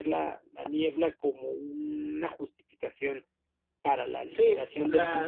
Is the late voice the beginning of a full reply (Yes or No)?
Yes